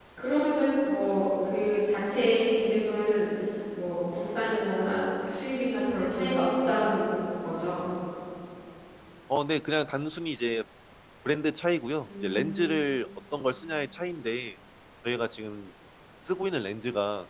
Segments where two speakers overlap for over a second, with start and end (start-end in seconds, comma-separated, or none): none